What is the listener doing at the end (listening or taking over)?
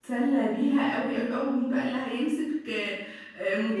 listening